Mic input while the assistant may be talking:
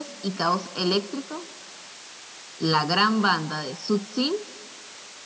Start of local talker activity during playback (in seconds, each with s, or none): none